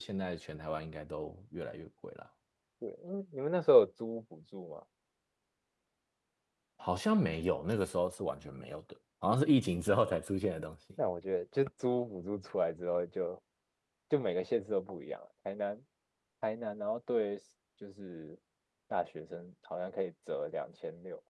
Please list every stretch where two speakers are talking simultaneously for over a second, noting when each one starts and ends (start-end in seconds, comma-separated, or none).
none